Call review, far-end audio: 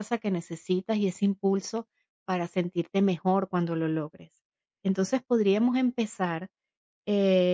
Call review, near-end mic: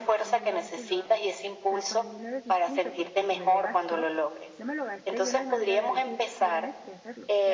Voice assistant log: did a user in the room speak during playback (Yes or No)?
Yes